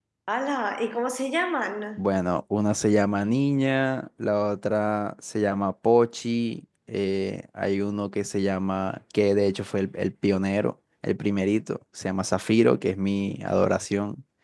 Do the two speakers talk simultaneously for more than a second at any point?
No

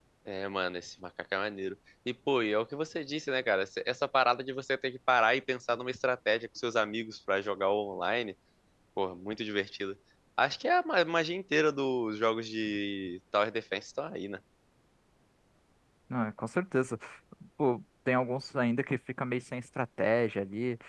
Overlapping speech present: No

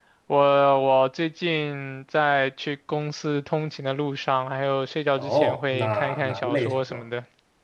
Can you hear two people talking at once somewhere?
Yes, from 5.2 s

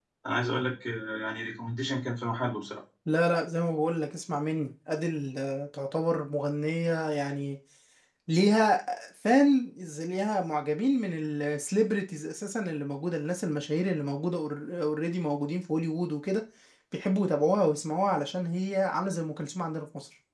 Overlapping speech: No

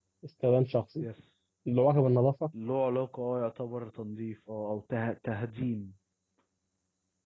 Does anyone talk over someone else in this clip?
No

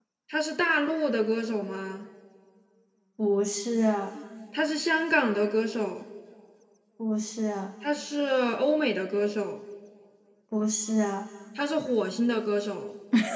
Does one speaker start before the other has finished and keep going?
No

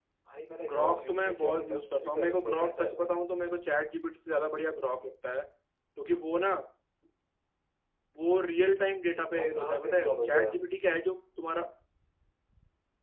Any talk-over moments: Yes, from 0.7 s

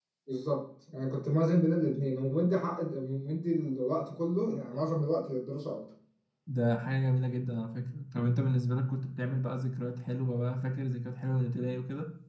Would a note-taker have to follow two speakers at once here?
No

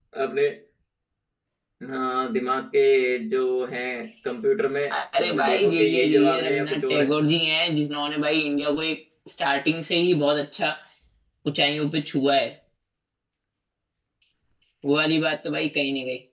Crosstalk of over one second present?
Yes, from 5.2 s

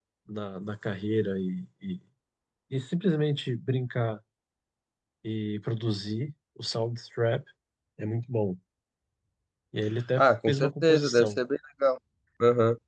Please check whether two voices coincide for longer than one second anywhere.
Yes, from 10.2 s

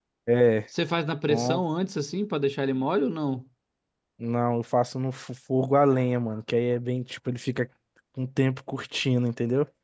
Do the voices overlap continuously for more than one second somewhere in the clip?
No

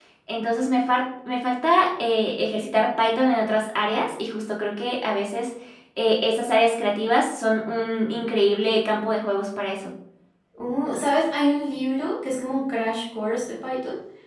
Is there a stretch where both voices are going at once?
No

